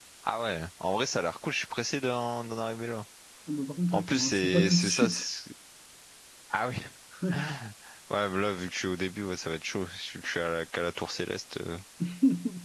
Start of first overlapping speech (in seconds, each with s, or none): 3.9 s